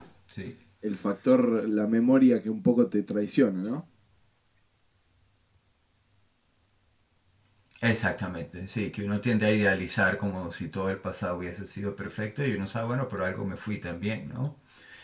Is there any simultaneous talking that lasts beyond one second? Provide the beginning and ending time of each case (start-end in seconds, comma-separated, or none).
none